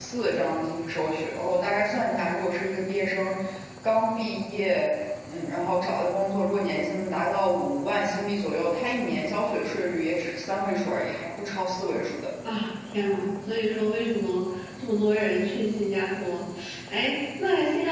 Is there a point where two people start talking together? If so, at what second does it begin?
none

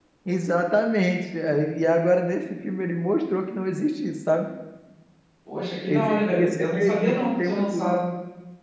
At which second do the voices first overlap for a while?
5.9 s

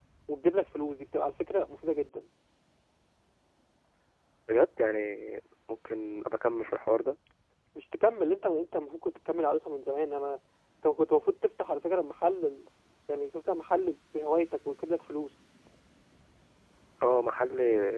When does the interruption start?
none

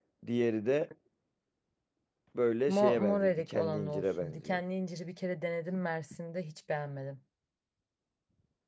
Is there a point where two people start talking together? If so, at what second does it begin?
2.7 s

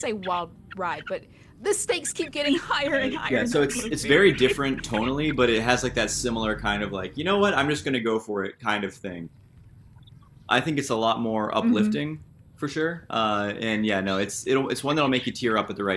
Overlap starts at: 2.9 s

